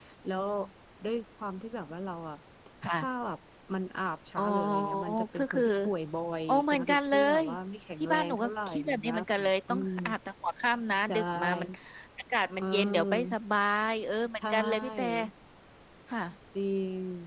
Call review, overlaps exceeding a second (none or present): present